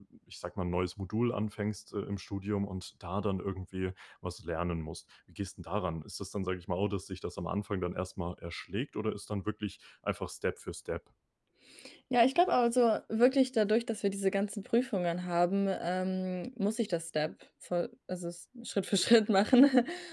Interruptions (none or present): none